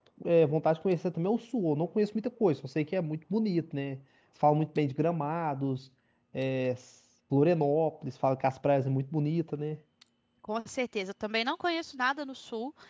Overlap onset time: none

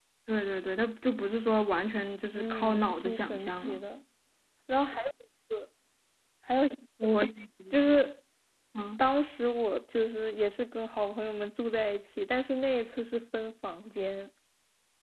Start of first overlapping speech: 2.4 s

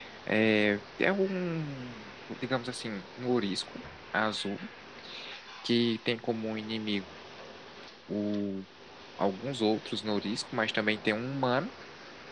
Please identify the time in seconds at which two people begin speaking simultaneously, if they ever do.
none

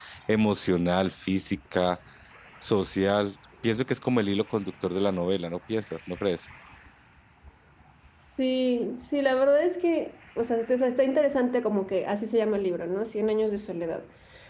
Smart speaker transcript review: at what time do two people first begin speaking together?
none

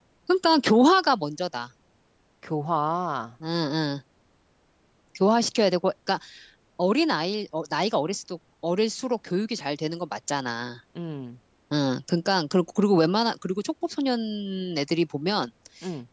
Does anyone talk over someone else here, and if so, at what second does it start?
none

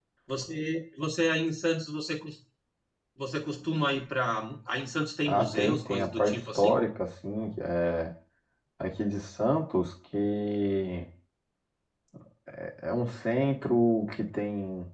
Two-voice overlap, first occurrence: 5.3 s

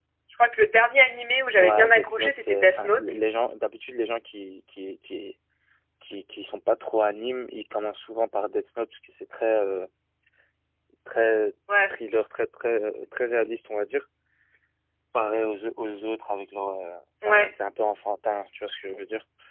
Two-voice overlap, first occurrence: 1.6 s

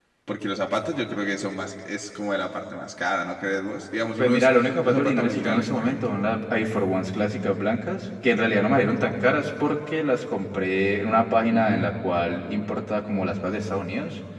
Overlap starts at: 4.2 s

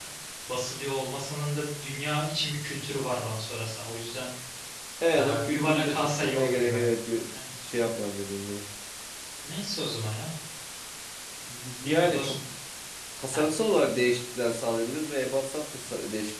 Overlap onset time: 5.2 s

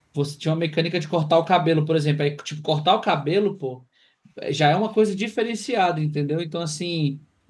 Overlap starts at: none

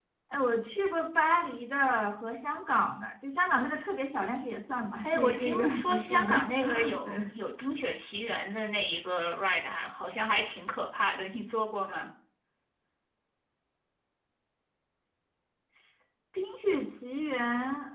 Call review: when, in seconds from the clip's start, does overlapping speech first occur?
5.0 s

